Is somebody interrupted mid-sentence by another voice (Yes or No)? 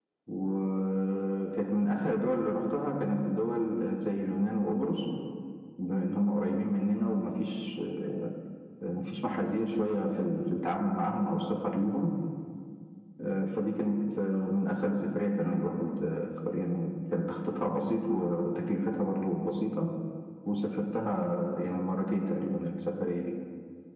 No